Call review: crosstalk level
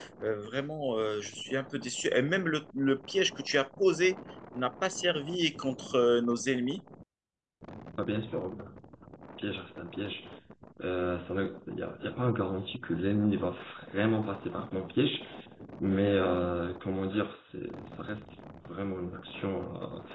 none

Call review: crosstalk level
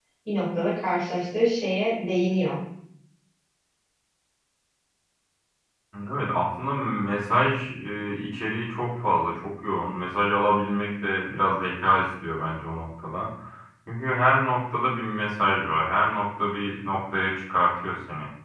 none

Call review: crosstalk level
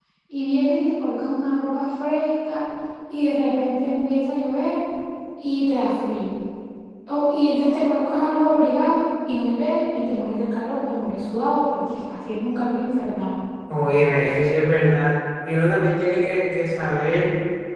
none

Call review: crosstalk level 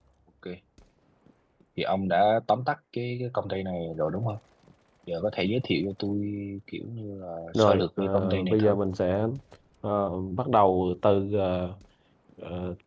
present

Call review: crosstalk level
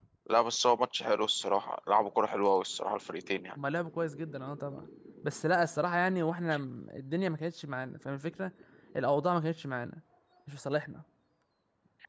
none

